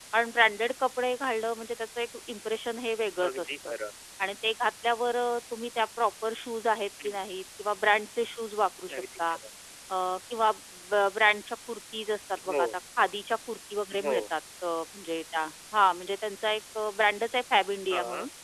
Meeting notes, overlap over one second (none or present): none